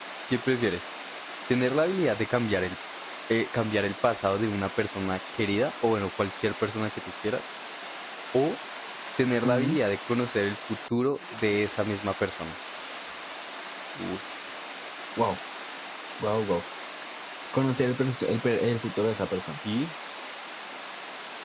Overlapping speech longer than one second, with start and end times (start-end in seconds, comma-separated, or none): none